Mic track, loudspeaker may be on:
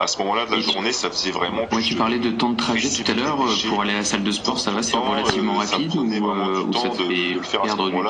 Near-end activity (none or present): none